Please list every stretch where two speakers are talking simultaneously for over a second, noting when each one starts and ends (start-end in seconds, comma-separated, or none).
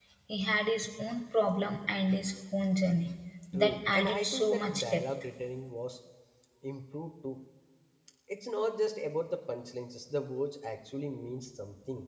3.5-5.0